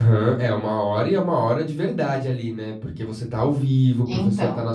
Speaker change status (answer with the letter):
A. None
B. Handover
A